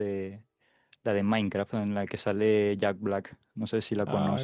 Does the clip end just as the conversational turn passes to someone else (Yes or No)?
Yes